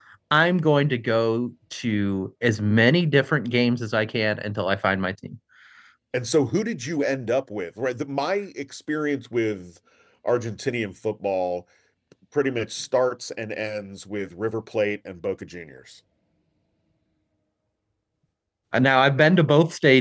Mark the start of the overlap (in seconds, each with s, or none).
none